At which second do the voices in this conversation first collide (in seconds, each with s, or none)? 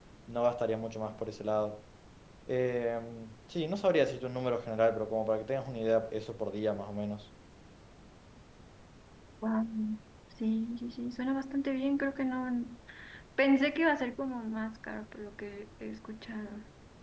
none